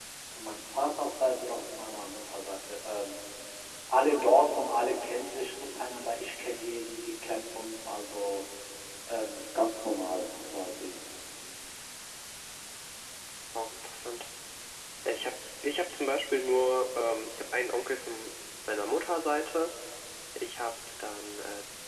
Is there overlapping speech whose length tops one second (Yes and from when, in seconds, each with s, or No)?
No